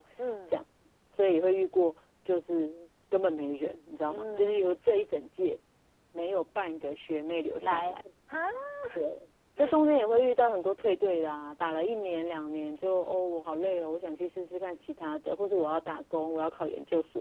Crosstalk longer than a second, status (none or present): none